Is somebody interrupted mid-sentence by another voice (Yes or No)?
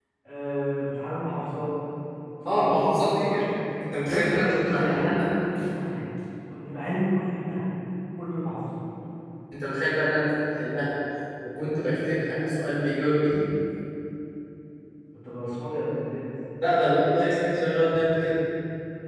Yes